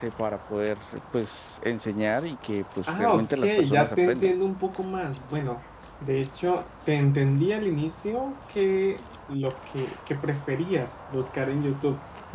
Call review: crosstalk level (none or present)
present